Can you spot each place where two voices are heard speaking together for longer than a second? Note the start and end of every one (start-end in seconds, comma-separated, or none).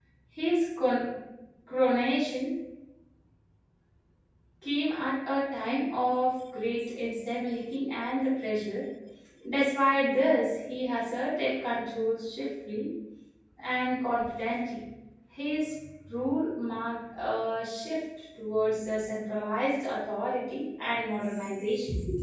none